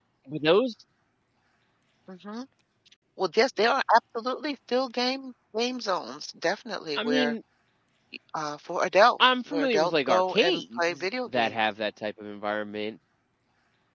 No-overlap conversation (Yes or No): No